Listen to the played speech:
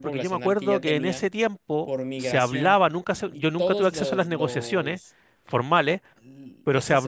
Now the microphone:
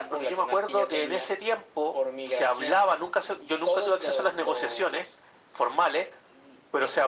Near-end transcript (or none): none